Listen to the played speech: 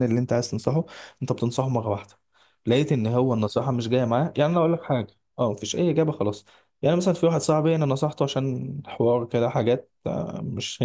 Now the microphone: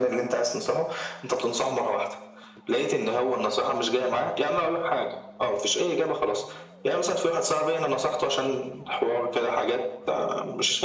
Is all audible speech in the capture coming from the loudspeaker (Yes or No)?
Yes